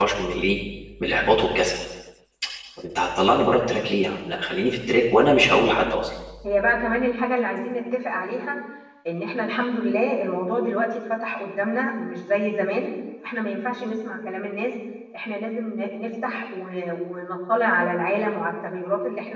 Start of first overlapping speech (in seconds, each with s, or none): none